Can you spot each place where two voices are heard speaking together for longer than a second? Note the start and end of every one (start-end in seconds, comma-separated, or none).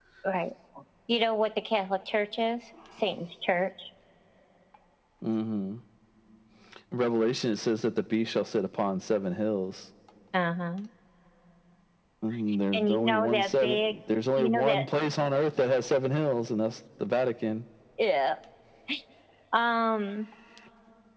12.7-13.9